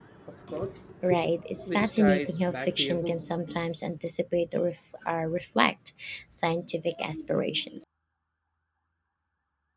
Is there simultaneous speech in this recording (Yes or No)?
Yes